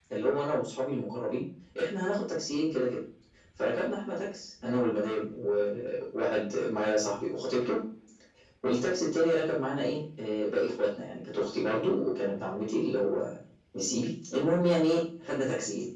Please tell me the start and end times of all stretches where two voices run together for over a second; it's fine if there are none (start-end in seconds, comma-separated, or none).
none